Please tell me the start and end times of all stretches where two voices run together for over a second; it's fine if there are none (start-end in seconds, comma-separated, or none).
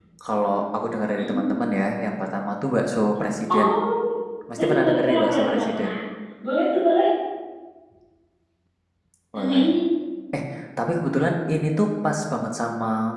4.5-5.9